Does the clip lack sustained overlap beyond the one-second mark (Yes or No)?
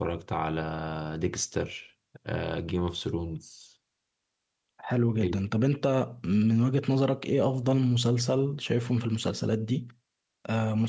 Yes